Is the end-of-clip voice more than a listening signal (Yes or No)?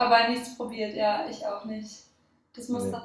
No